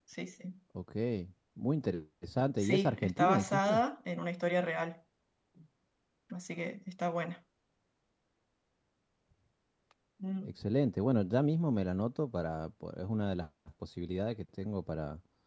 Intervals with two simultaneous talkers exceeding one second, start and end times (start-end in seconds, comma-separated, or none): 2.6-3.8